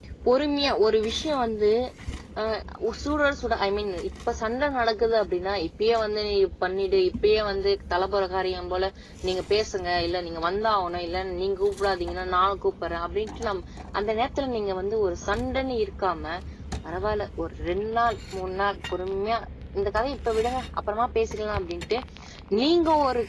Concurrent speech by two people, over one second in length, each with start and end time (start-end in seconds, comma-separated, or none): none